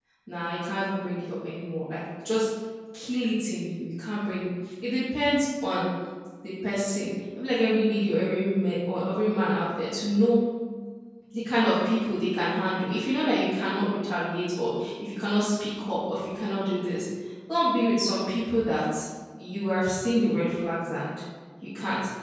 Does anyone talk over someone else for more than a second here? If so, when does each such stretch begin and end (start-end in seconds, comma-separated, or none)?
none